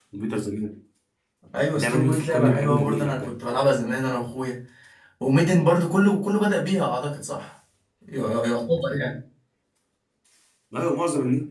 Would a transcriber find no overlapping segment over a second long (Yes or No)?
No